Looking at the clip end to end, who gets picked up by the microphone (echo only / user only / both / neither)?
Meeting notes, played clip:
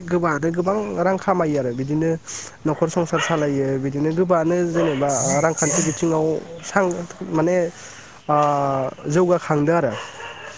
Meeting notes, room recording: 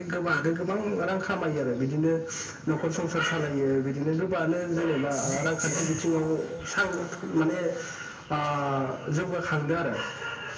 echo only